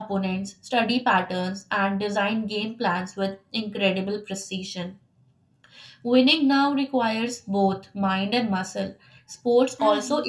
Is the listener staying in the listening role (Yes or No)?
Yes